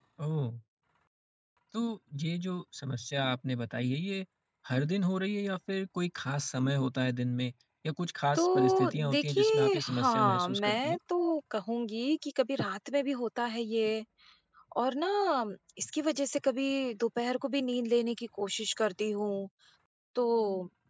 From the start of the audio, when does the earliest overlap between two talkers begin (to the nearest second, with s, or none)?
8 s